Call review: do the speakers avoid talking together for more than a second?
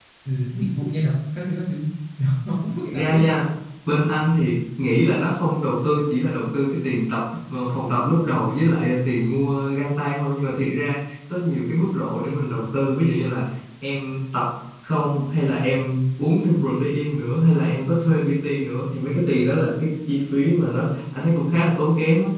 Yes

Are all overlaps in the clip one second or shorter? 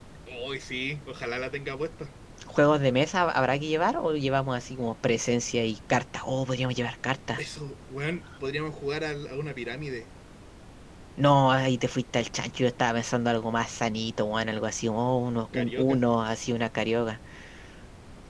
Yes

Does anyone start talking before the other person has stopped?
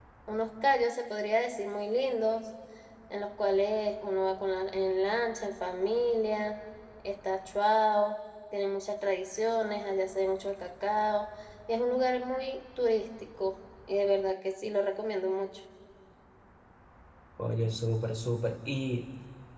No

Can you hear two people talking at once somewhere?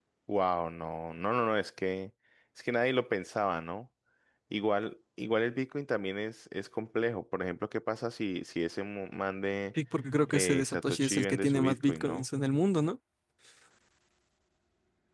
Yes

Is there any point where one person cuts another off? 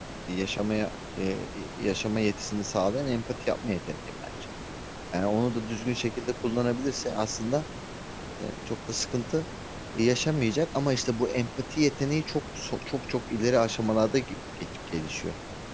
No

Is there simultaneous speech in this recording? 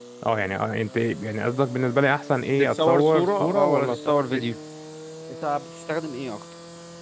Yes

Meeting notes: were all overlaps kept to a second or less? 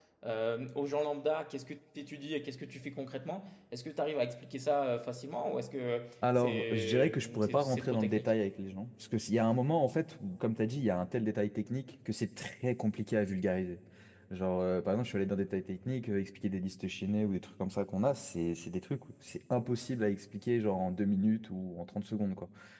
No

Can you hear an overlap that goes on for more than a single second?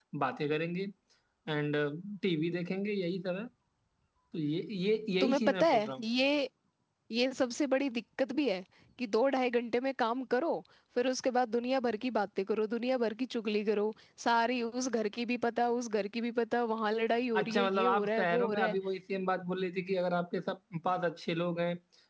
Yes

